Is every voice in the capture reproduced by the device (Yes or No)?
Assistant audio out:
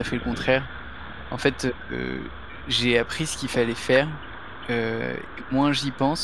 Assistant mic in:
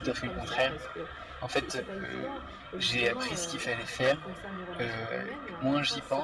No